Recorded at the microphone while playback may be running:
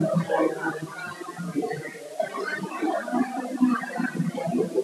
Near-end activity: none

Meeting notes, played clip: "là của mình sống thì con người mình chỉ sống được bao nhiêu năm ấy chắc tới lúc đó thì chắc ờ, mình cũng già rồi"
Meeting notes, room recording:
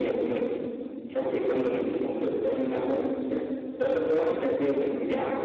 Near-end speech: none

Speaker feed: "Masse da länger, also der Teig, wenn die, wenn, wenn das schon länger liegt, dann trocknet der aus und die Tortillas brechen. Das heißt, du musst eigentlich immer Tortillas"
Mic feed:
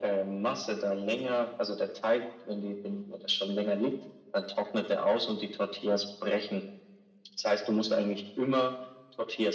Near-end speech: none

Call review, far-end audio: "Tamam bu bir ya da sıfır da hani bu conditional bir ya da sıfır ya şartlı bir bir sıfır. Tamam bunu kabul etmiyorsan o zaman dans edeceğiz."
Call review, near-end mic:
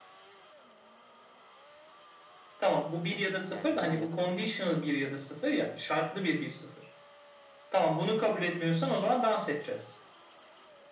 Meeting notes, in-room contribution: present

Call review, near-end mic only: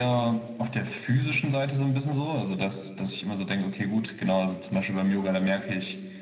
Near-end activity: none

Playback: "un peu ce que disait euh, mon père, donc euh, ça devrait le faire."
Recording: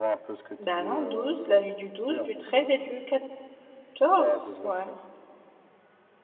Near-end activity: present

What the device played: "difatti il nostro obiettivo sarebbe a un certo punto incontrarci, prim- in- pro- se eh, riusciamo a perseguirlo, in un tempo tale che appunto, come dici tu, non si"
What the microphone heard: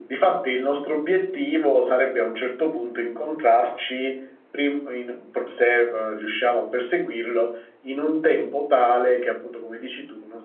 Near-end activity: none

